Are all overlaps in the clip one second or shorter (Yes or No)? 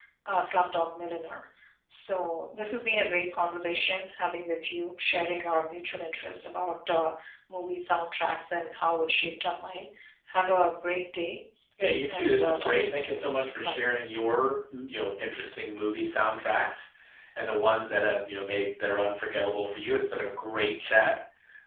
No